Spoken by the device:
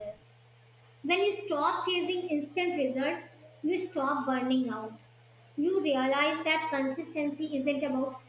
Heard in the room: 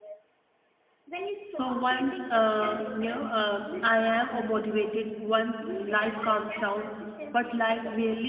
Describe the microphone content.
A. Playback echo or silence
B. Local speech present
B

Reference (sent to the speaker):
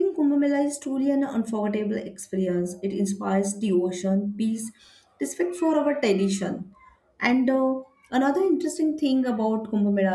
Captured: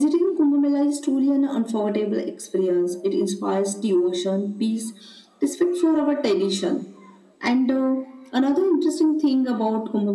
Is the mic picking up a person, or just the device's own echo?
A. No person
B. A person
A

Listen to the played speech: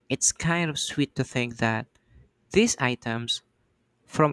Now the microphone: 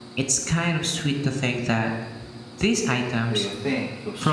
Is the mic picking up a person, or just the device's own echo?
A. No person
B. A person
B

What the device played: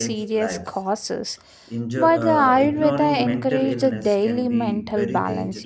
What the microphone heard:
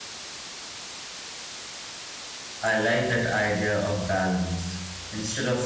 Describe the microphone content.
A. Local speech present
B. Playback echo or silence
A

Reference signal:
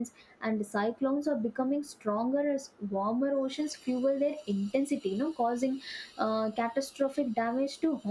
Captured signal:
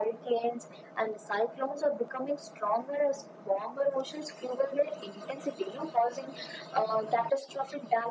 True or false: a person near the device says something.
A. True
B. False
B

